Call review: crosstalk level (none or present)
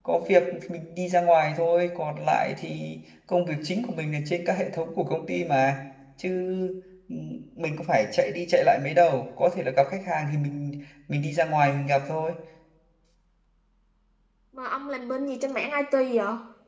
none